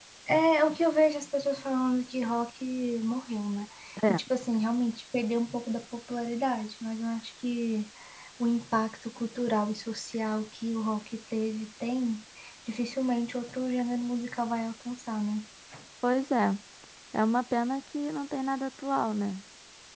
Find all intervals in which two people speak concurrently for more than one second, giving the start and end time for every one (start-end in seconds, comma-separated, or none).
none